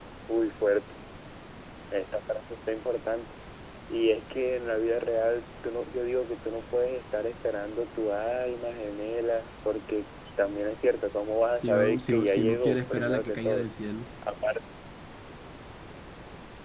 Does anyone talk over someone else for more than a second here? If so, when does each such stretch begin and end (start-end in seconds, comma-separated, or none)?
11.6-13.7